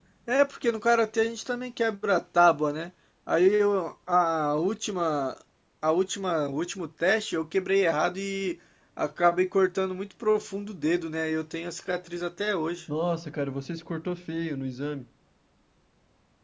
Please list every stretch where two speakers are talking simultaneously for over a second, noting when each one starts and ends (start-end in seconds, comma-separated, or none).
none